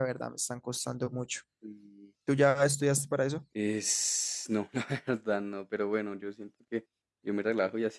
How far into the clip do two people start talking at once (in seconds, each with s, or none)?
none